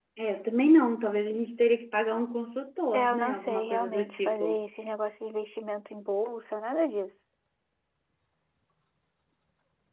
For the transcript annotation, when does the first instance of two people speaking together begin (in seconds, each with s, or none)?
2.9 s